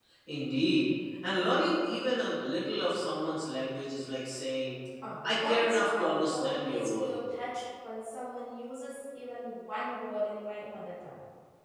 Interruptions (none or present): present